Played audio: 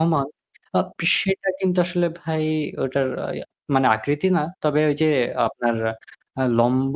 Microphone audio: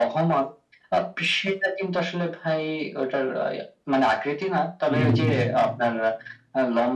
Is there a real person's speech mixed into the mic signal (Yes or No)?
Yes